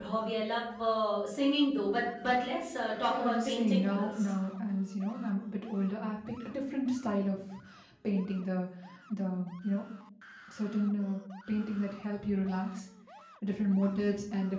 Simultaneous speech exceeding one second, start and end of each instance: 3.1-4.3

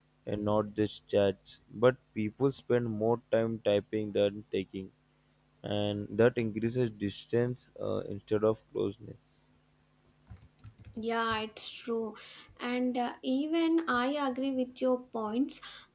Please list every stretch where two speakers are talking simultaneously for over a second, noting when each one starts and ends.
none

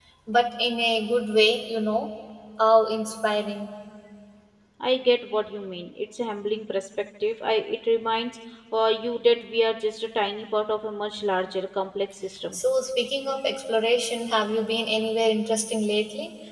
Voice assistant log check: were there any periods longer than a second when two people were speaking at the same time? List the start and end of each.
none

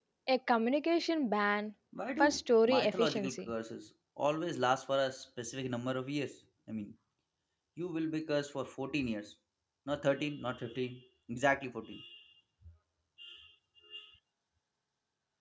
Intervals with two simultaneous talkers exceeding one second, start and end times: 2.2-3.5

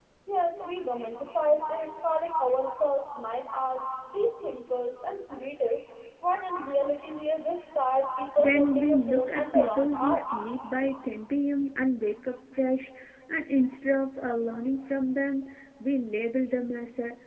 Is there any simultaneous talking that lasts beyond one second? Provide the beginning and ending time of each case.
8.4-10.2

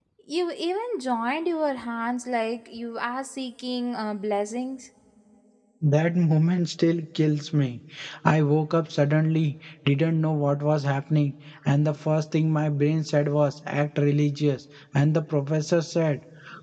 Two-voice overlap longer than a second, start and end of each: none

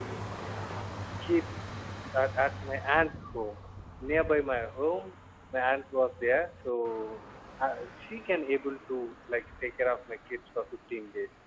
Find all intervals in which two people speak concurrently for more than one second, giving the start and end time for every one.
none

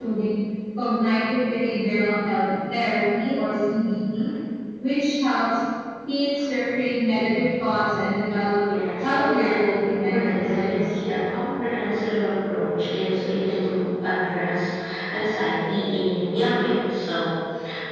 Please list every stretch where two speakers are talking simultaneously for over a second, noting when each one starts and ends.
9.0-11.0

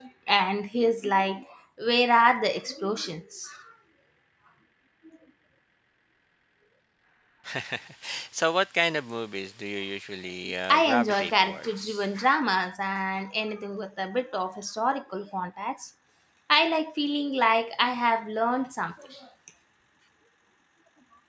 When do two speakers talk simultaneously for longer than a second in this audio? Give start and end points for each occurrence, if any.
10.7-12.1

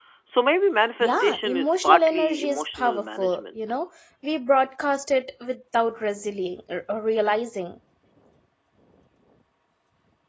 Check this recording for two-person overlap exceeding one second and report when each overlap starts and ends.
1.0-3.6

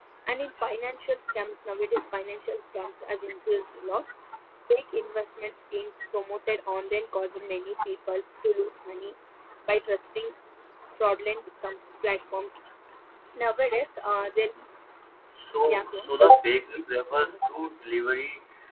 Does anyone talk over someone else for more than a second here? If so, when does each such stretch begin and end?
none

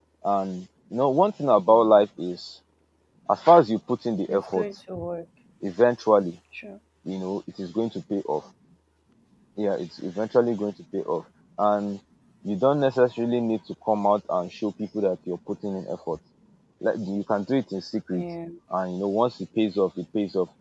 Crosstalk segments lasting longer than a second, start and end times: none

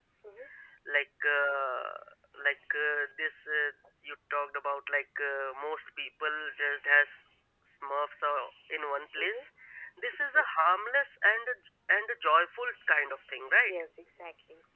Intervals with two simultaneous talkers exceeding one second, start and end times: none

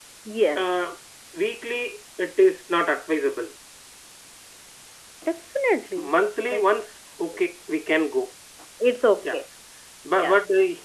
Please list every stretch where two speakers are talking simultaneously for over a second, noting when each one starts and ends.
none

